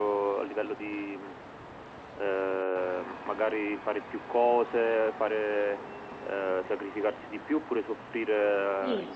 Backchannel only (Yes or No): No